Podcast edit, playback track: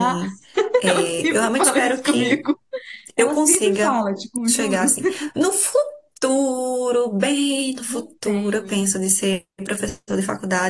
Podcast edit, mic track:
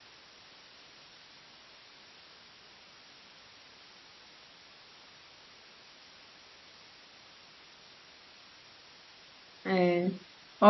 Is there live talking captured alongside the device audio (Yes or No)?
Yes